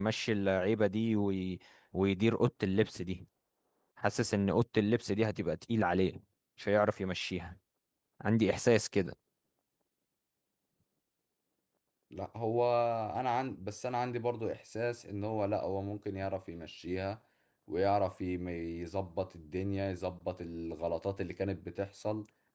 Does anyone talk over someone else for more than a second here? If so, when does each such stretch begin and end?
none

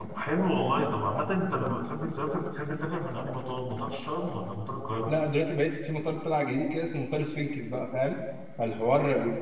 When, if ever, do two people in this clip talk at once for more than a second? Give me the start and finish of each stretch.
none

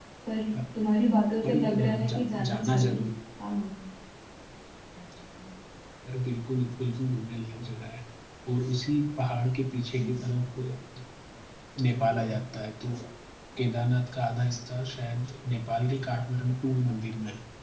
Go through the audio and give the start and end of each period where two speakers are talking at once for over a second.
1.5-3.0

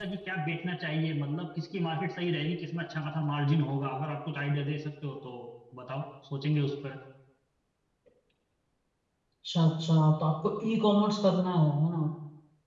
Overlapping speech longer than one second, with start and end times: none

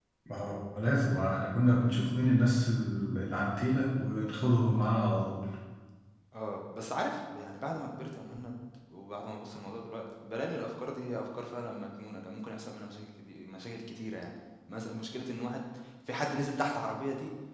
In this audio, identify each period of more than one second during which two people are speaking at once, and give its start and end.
none

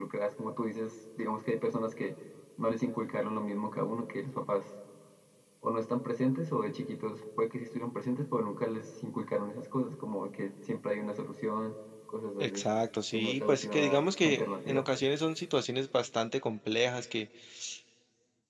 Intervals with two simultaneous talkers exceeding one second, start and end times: 13.1-14.9

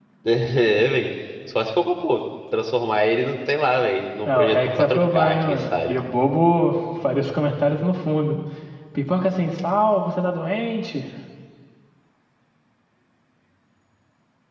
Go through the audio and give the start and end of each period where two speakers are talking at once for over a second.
4.2-5.9

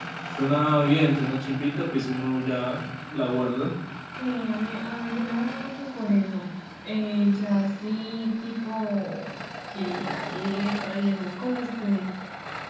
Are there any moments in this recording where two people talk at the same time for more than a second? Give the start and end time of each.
none

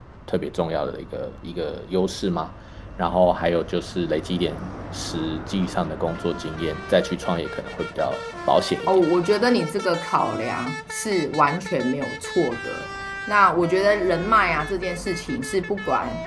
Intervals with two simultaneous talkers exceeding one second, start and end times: none

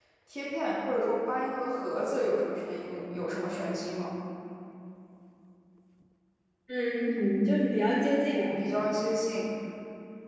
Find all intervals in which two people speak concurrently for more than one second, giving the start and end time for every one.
none

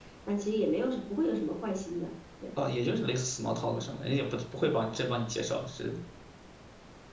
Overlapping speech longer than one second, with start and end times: none

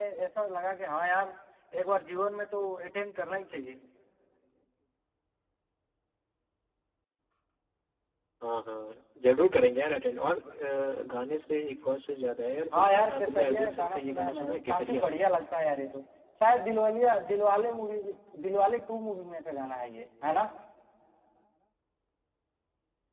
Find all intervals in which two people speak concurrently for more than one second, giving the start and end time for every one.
12.7-15.0

